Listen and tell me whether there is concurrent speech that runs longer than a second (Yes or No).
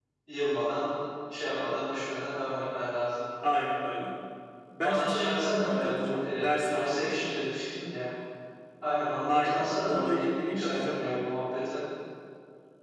Yes